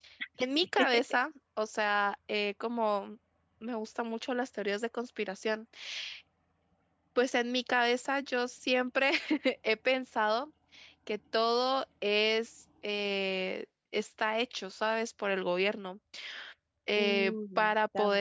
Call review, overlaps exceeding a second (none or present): present